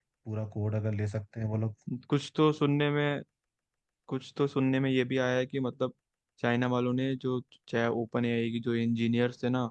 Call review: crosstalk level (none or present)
none